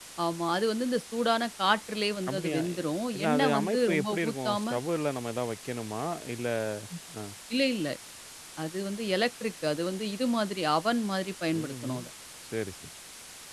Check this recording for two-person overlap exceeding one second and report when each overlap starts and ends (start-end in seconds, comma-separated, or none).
3.2-4.6